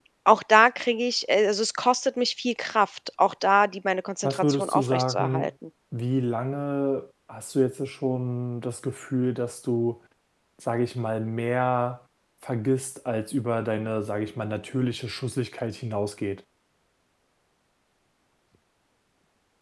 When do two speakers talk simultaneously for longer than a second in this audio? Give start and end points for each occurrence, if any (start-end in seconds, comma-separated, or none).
4.2-5.5